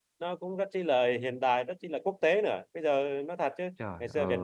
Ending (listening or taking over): listening